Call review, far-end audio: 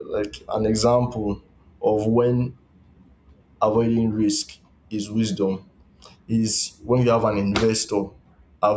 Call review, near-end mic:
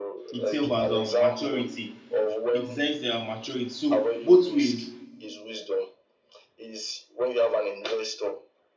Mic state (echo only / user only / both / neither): both